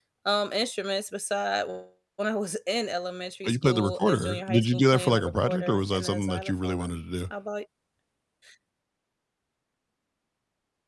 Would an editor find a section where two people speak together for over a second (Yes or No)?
Yes